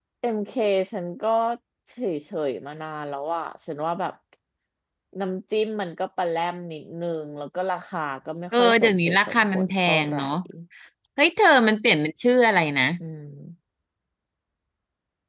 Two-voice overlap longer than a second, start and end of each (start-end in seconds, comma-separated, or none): 8.6-10.3